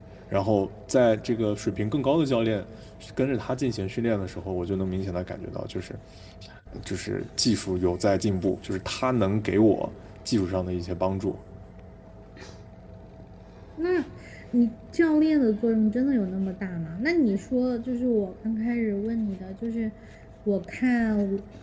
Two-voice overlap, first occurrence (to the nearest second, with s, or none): none